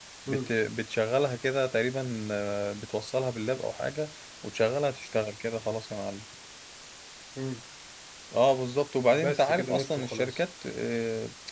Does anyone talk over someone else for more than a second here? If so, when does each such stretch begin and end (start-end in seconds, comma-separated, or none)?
9.1-10.4